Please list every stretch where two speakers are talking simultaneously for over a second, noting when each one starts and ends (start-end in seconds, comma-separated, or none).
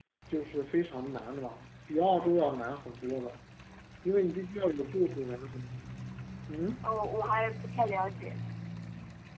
none